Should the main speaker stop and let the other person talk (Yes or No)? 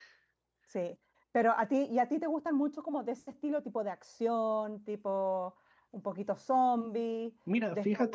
Yes